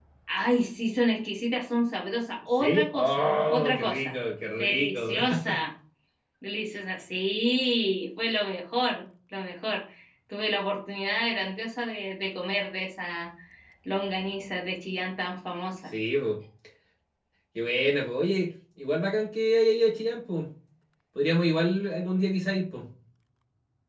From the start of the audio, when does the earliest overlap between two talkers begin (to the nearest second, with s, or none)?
3 s